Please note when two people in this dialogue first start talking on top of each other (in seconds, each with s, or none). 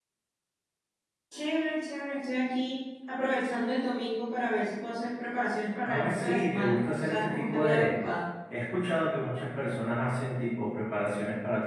5.8 s